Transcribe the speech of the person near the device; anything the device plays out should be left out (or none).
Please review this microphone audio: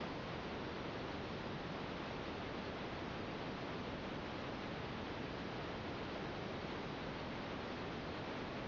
none